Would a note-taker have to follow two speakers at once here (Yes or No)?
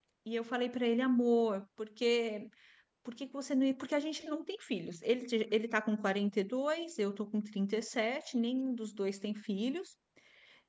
No